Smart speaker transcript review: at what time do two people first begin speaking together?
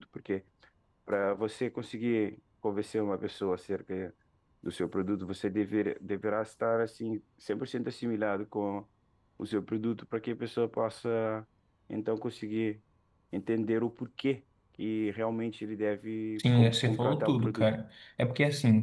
16.4 s

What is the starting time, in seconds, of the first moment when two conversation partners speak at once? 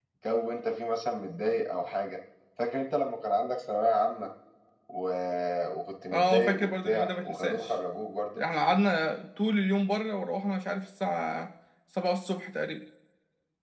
6.1 s

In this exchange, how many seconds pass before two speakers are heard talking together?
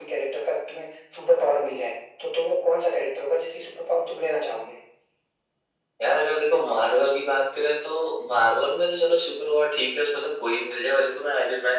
none

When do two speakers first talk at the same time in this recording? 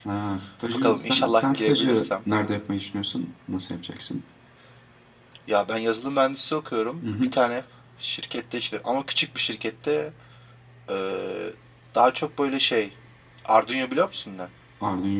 0.7 s

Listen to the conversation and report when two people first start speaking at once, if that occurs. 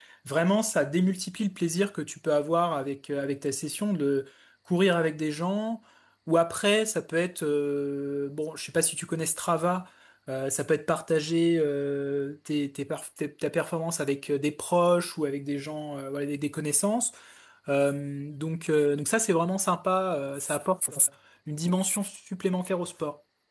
none

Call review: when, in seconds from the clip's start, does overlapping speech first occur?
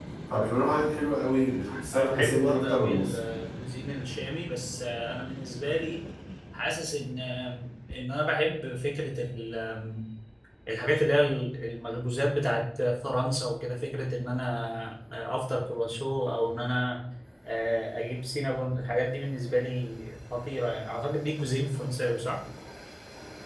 1.9 s

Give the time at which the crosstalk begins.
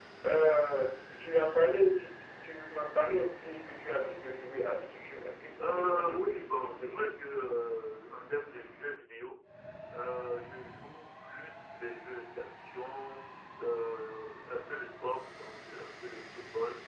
5.6 s

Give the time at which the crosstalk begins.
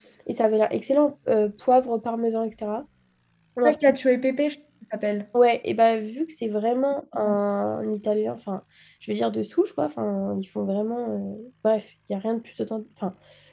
none

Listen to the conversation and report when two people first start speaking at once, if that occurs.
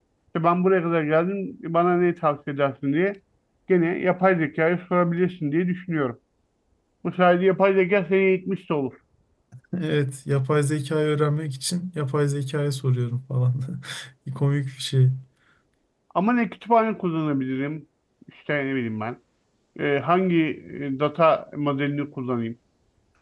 none

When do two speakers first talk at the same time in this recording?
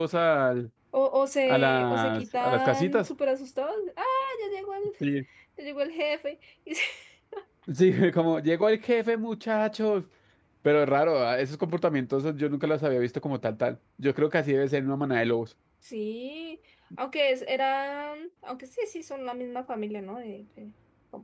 1.5 s

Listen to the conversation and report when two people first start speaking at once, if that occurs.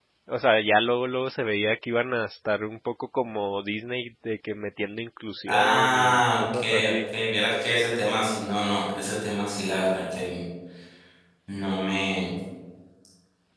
5.5 s

